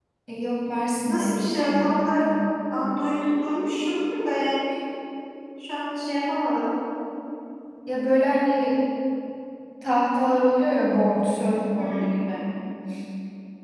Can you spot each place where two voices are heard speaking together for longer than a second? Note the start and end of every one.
none

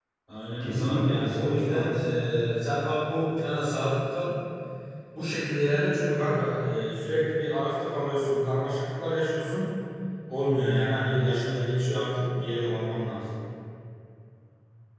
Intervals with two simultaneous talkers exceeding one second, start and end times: 0.6-1.8

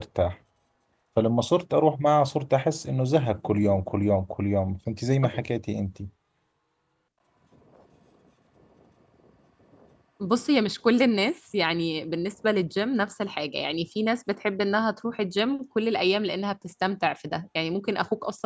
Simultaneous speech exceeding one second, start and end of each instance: none

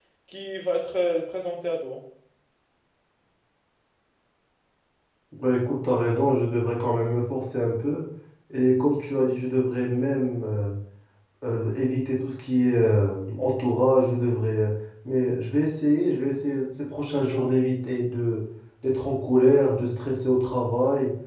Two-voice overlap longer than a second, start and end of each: none

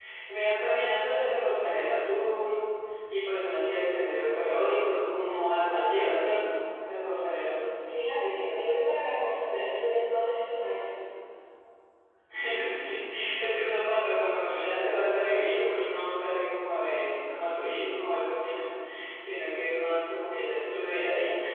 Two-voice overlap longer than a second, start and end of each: none

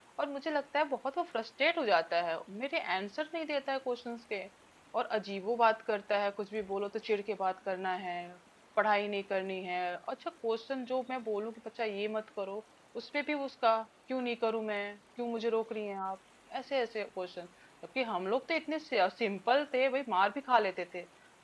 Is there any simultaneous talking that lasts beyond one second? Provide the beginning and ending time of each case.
none

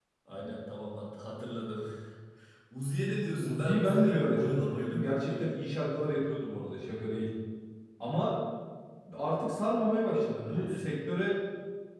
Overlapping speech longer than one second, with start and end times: 3.4-5.5

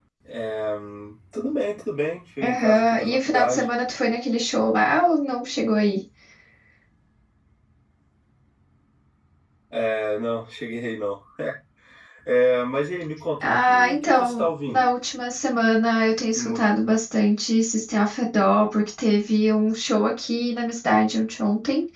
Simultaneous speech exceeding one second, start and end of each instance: 2.4-3.7, 13.4-14.9

